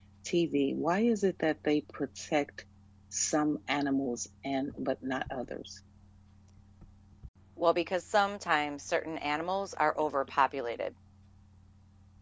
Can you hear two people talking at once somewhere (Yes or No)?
No